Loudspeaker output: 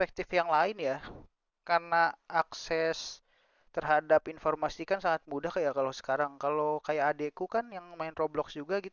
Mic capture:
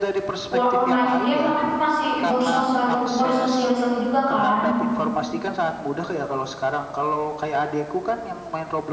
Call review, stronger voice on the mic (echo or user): user